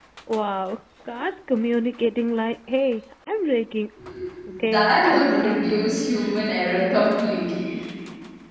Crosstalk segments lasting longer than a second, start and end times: 4.6-5.9

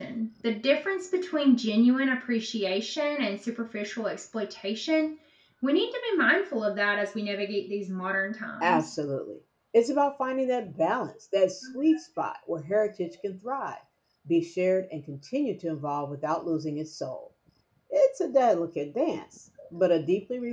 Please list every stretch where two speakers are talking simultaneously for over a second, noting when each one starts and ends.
none

